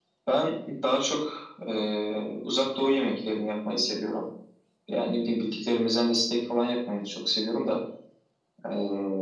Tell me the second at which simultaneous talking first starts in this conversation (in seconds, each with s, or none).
none